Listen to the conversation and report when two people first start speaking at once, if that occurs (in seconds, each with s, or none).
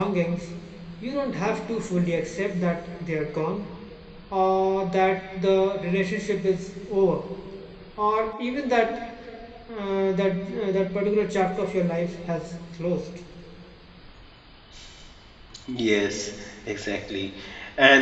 none